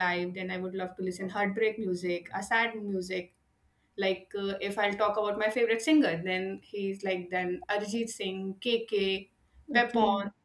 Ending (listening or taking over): listening